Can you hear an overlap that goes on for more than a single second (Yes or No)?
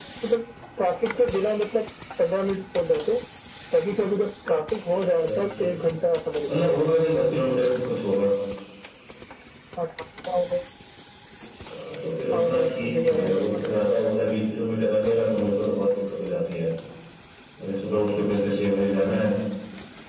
Yes